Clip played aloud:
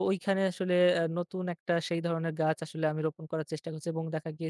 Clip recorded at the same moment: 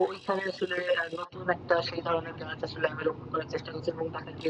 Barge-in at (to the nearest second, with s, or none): none